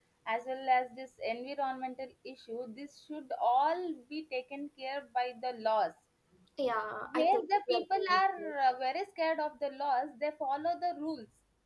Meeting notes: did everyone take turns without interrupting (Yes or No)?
No